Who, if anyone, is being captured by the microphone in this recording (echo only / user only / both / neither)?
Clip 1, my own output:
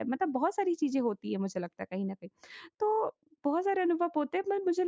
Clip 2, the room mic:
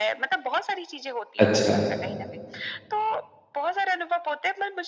both